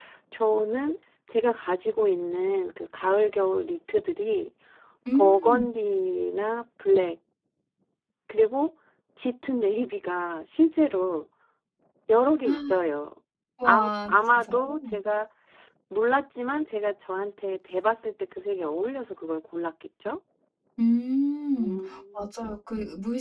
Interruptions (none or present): present